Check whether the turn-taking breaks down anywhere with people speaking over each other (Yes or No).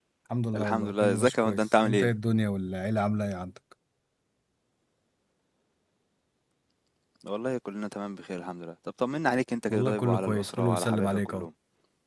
Yes